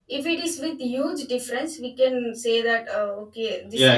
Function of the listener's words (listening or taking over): taking over